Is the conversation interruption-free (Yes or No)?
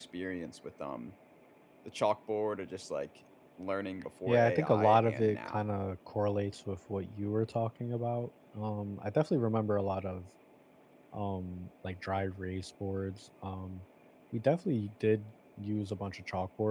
No